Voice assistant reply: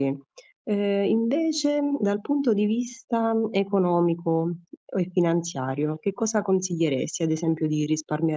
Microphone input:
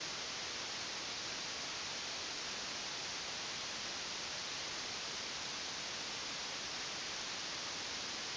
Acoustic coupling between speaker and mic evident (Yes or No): No